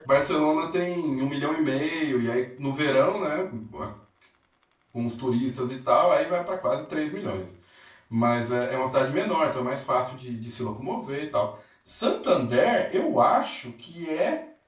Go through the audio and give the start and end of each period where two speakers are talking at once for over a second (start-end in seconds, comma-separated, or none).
none